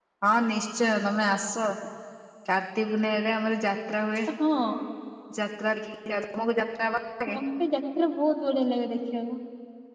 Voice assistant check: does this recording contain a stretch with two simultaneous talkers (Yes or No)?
No